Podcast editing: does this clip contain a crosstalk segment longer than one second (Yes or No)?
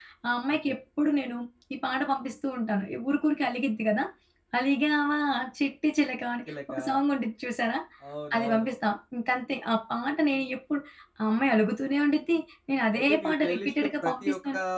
Yes